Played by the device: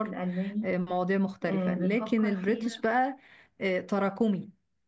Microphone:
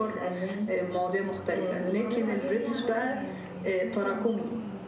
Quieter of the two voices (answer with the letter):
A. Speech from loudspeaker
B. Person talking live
B